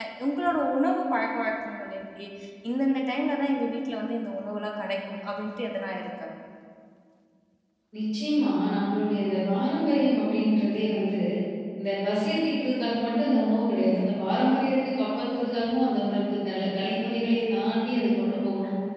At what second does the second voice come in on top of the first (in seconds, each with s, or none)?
none